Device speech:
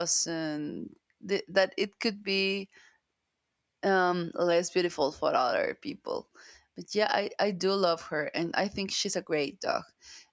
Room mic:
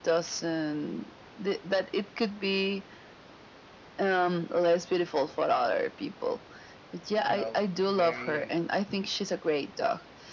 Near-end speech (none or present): present